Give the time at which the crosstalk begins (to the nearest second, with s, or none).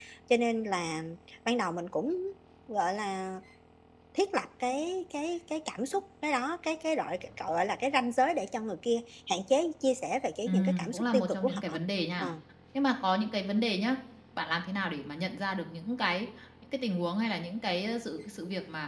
10 s